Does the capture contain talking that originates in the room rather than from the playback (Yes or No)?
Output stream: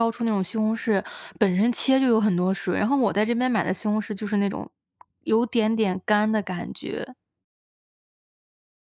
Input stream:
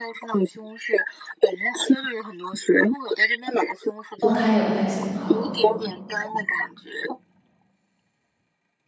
Yes